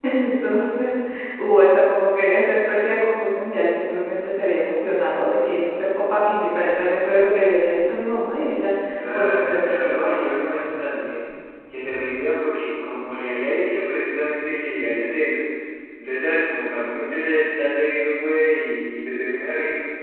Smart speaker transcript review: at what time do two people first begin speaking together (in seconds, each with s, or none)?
9.1 s